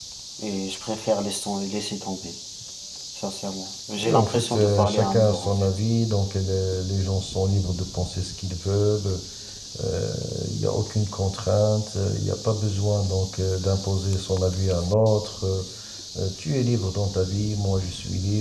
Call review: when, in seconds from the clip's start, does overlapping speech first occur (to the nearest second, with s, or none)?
4 s